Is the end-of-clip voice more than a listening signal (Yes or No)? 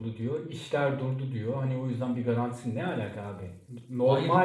No